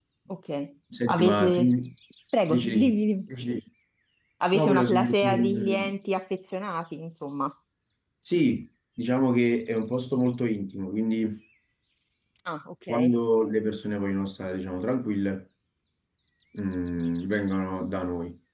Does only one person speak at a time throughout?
No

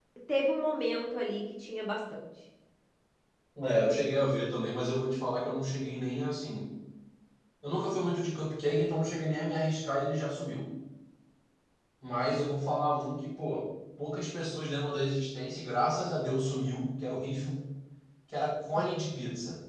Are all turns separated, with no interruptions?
Yes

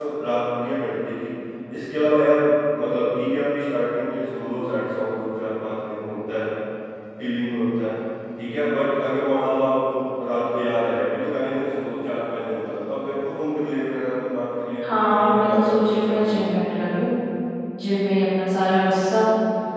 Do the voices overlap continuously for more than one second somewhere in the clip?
Yes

